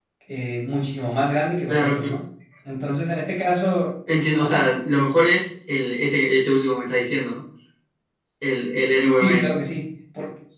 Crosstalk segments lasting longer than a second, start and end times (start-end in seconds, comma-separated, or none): none